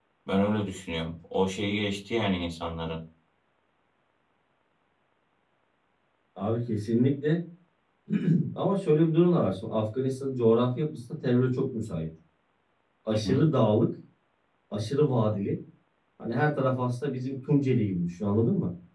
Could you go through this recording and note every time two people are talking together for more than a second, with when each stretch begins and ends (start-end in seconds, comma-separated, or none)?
none